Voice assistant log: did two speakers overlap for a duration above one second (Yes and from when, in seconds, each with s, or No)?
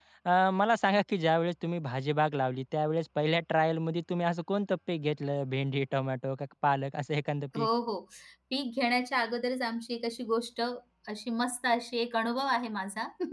No